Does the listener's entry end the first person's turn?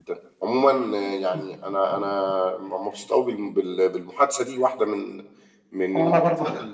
No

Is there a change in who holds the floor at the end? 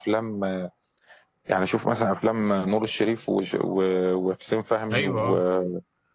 No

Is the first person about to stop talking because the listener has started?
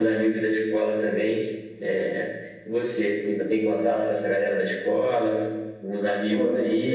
Yes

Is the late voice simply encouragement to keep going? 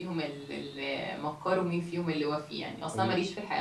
Yes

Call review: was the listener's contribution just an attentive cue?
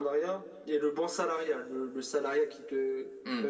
No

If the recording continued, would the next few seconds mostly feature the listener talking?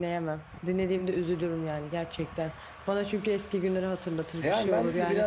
Yes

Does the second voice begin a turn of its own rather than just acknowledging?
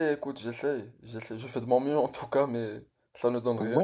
Yes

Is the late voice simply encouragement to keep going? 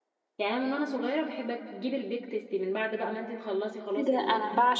No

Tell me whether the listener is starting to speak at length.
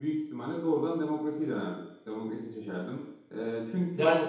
No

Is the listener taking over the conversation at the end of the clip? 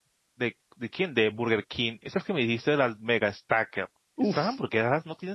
No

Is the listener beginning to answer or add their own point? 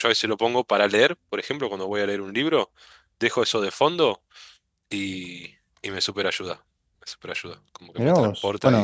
Yes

